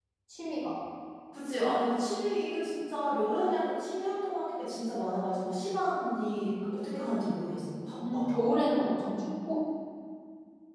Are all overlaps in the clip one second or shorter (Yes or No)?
Yes